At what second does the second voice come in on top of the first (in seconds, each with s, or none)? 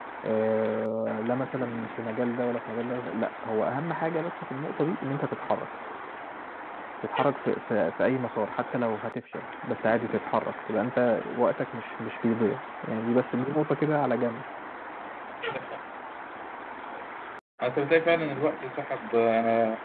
none